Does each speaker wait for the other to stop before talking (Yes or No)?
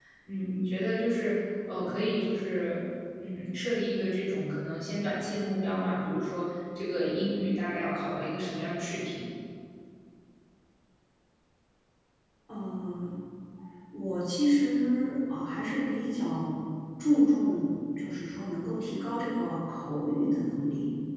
Yes